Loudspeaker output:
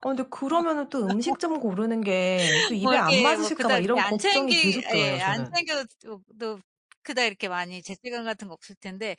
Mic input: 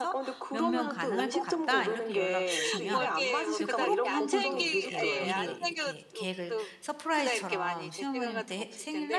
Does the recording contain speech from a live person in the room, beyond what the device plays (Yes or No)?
Yes